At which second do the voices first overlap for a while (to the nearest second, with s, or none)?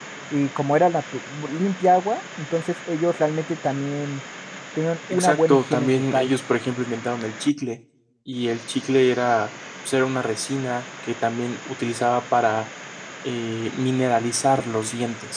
5 s